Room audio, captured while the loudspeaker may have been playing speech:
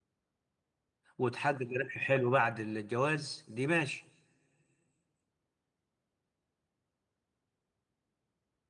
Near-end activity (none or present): present